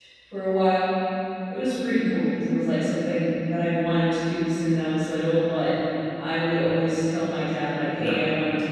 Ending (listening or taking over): listening